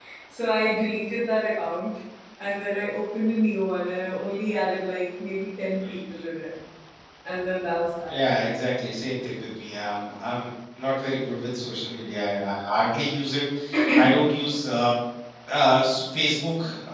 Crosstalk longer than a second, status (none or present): none